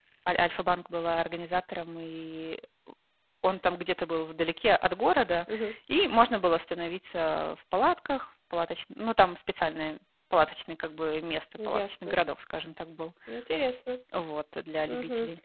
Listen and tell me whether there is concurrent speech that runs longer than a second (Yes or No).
No